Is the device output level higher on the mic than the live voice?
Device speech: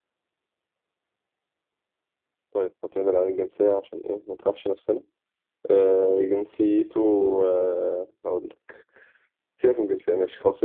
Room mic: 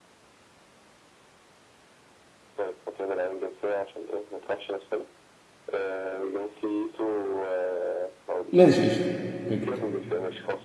No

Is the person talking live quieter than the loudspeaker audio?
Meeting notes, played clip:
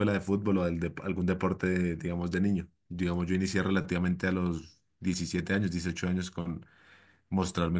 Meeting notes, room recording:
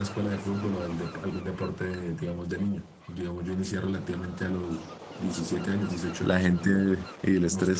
No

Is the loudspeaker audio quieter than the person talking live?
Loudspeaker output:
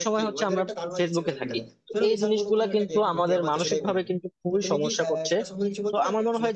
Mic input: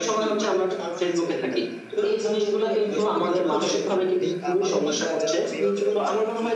No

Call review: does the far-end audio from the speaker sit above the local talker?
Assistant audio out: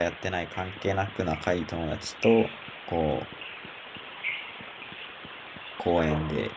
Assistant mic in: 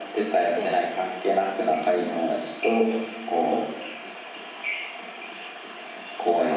Yes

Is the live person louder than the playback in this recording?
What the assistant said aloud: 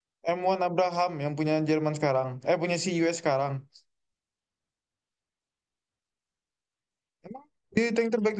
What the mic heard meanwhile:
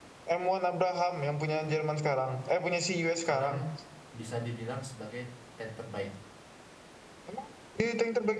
No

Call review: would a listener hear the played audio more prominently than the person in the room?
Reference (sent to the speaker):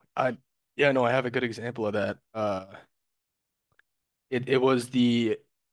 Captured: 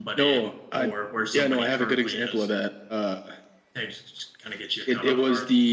Yes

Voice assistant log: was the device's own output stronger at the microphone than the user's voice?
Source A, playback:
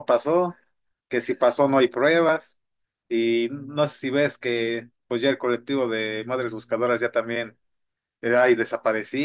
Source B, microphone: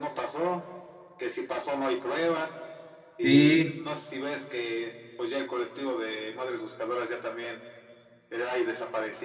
No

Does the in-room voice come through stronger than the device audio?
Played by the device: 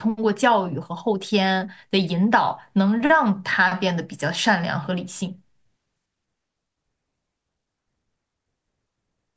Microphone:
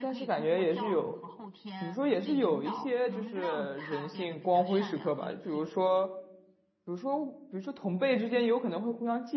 Yes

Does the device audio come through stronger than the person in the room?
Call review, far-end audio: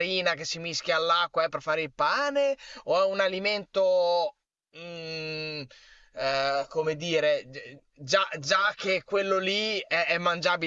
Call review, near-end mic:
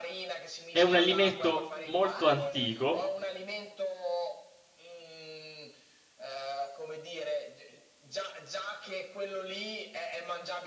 No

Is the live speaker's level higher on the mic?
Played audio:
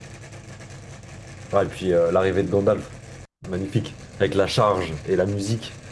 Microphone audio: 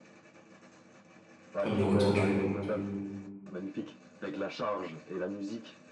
Yes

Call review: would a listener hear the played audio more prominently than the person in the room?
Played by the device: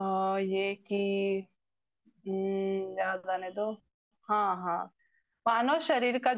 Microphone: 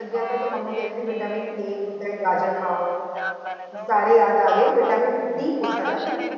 No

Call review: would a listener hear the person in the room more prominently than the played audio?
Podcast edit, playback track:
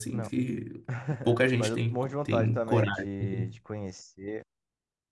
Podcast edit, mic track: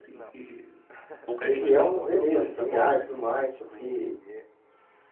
Yes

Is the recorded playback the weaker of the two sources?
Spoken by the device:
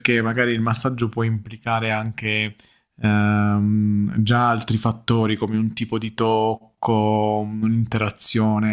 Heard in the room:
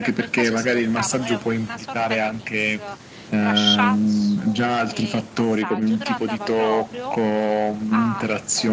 No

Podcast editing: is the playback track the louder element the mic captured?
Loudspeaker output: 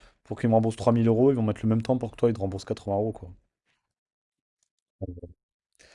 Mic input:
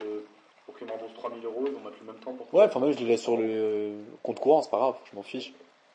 No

